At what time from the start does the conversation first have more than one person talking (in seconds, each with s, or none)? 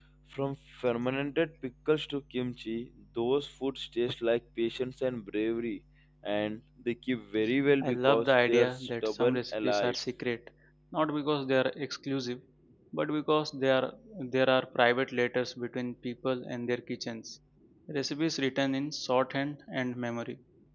7.8 s